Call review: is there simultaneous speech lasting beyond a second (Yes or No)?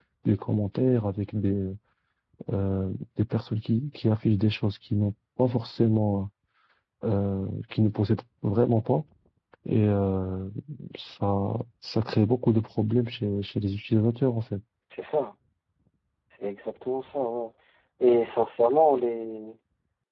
No